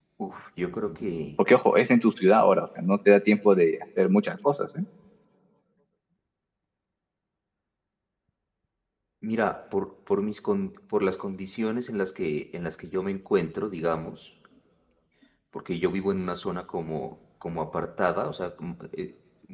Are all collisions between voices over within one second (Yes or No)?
Yes